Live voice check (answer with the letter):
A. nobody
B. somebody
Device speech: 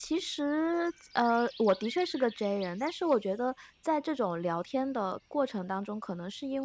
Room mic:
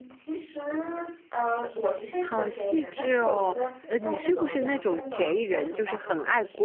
B